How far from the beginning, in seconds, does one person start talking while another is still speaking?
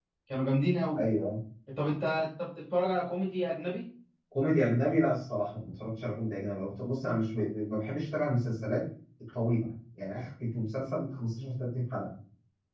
none

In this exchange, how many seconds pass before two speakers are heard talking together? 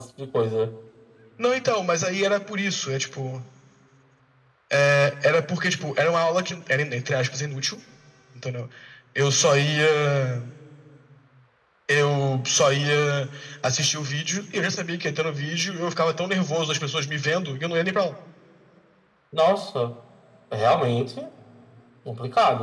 none

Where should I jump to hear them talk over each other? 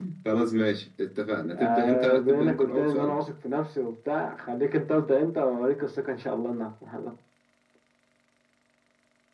1.4 s

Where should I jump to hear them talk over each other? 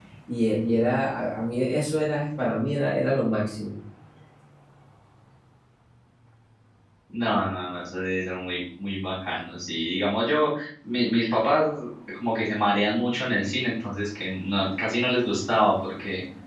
none

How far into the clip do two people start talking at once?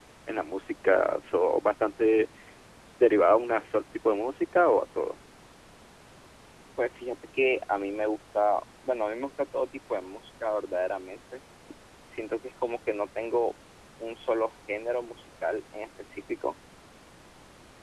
none

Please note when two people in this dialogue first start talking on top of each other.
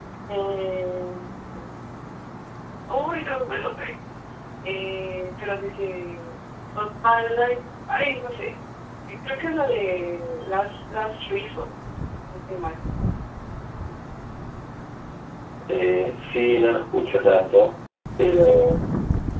none

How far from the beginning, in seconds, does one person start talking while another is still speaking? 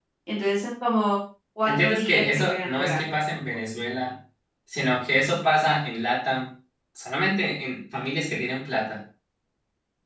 1.7 s

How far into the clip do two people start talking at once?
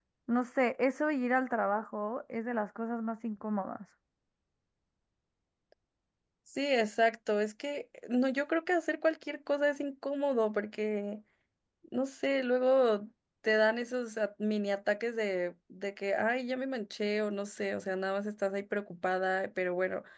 none

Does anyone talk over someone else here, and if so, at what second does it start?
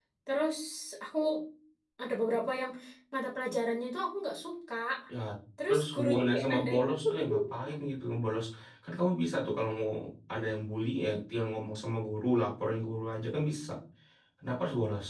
5.7 s

